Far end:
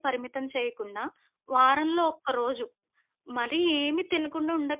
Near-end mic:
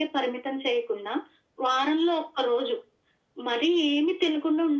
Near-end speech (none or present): none